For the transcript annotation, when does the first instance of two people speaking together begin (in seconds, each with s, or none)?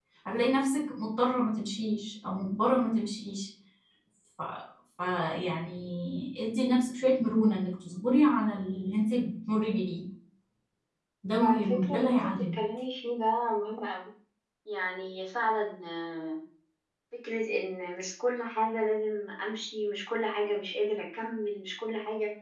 11.3 s